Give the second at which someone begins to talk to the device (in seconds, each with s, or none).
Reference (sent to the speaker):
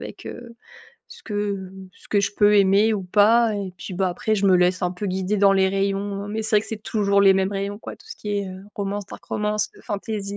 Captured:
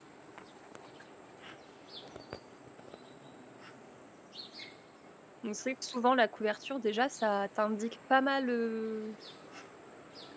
5.4 s